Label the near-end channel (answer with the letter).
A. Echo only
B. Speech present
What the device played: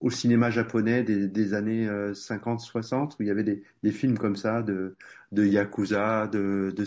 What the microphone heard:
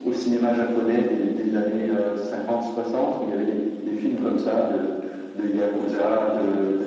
A